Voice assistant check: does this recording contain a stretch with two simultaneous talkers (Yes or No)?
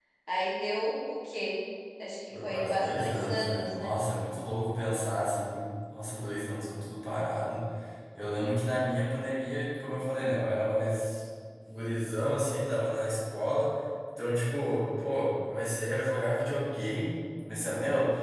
Yes